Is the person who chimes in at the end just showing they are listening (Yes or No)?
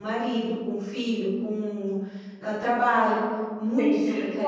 No